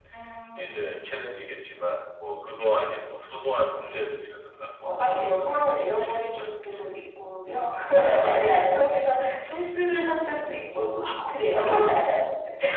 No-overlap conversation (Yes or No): No